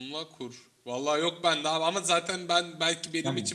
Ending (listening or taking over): listening